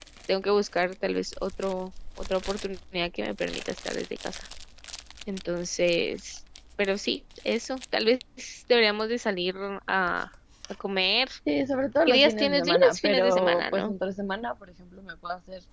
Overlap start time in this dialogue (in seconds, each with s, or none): 12.1 s